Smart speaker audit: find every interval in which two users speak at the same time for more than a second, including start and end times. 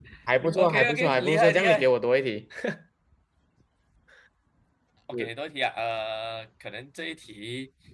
0.6-1.9

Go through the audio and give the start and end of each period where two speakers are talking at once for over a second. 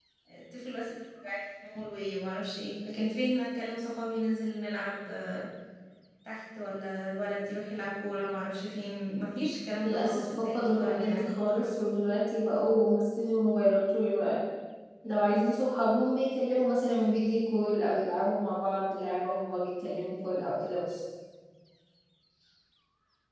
9.8-11.9

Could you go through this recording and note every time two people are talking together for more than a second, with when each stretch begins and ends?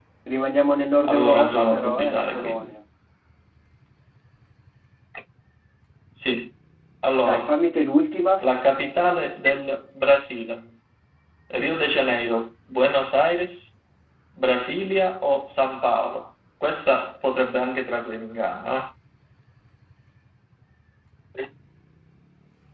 1.0-2.7

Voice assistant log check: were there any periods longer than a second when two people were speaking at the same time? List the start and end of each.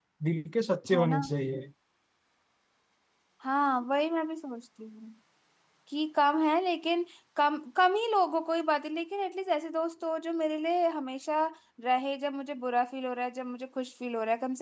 none

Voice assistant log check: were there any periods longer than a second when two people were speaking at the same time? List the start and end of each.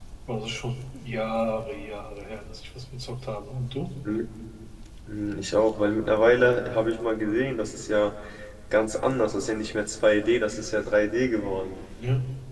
none

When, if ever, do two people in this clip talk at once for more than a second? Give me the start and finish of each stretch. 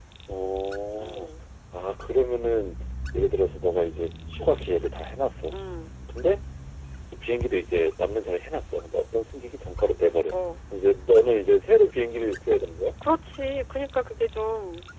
none

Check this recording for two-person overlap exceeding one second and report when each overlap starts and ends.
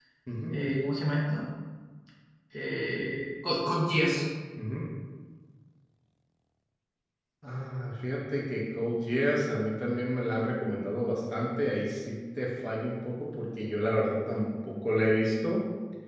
none

